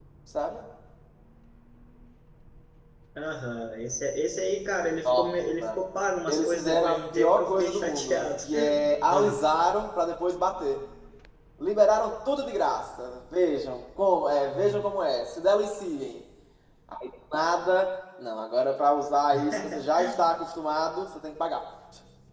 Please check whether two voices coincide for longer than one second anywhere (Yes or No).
Yes